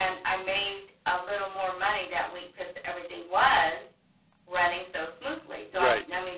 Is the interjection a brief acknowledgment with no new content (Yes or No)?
Yes